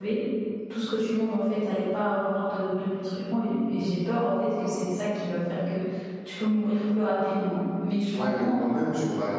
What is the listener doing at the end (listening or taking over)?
taking over